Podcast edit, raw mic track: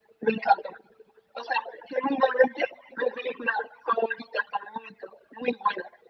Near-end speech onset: none

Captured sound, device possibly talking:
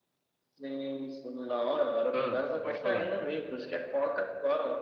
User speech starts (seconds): 2.1 s

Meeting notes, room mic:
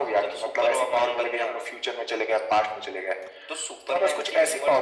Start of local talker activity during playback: none

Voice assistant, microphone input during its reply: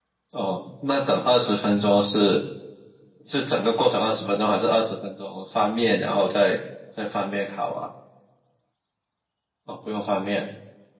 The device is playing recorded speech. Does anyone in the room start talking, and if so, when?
none

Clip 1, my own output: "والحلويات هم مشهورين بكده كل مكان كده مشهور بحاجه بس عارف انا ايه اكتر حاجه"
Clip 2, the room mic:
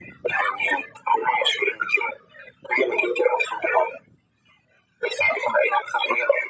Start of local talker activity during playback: none

